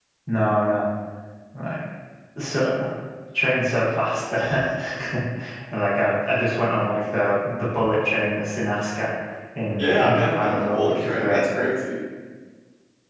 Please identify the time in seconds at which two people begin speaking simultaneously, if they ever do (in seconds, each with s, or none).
9.8 s